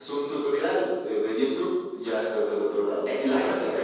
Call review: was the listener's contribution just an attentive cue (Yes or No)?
No